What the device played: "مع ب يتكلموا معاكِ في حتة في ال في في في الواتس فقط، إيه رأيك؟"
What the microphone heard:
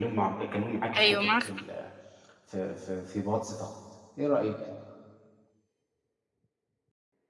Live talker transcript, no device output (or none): أيوه معاك حق،